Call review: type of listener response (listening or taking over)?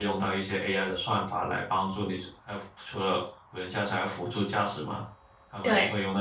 listening